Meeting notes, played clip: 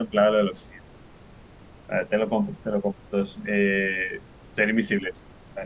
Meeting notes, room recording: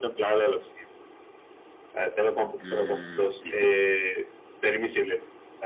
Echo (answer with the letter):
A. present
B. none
A